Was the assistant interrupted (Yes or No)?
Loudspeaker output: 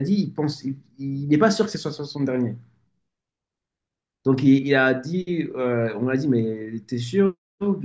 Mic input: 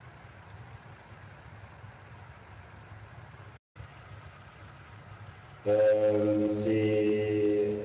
Yes